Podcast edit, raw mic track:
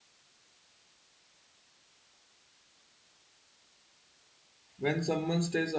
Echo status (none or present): none